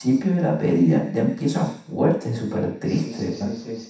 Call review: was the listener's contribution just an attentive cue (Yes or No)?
No